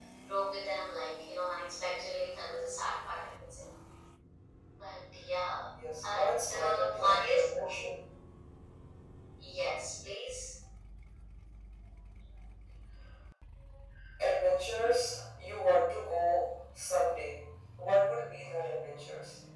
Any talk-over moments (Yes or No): Yes